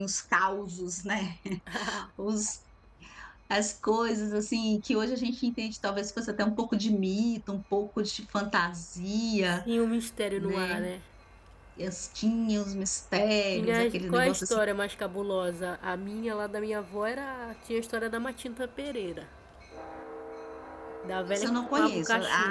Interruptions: present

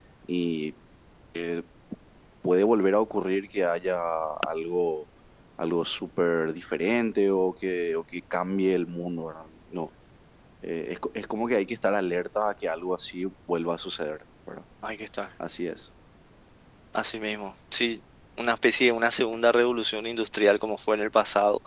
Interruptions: none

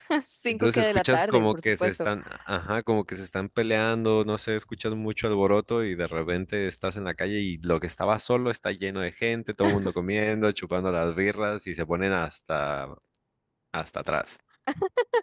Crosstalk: present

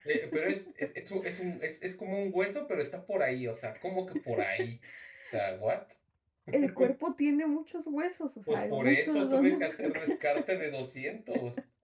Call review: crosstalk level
present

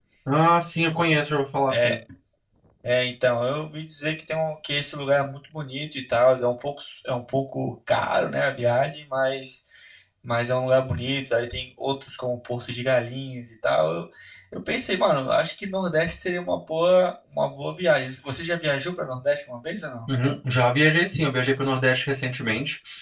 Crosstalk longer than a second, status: none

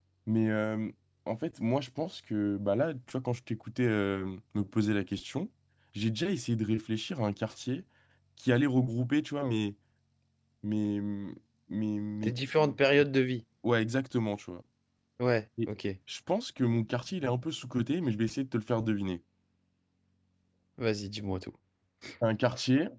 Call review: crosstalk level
none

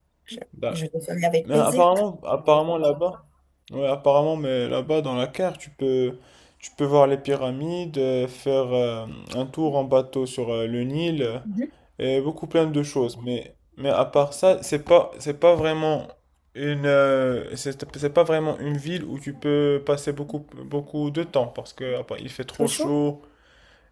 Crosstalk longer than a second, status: none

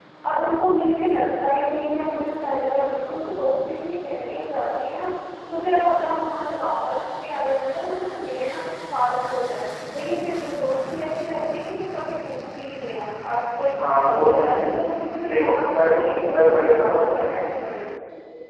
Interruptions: present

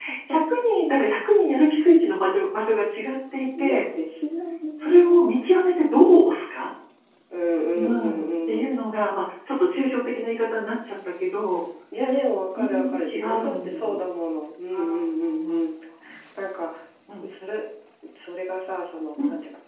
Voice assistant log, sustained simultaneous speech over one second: present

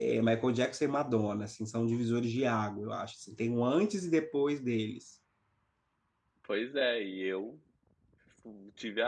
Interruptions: none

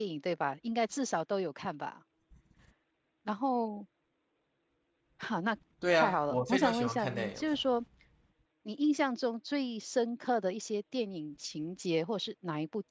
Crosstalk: present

